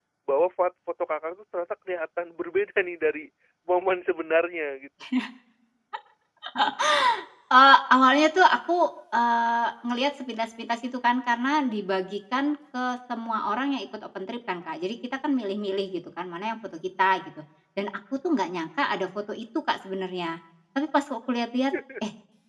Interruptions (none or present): none